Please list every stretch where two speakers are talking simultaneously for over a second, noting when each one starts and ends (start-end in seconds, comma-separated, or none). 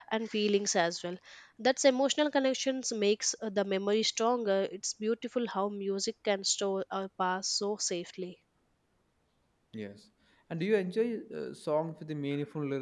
none